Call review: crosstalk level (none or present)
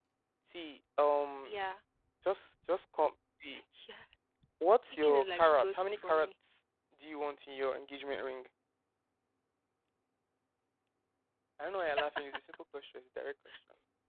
present